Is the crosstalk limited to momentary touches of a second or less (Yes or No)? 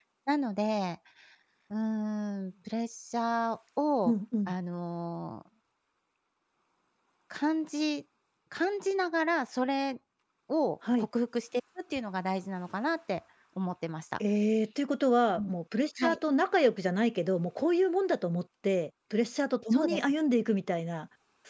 Yes